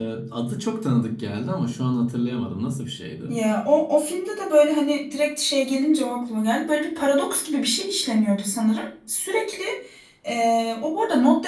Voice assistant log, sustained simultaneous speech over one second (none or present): none